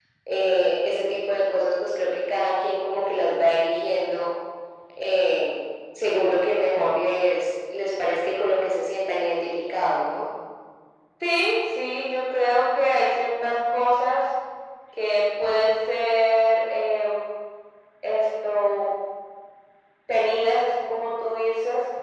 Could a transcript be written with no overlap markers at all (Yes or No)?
Yes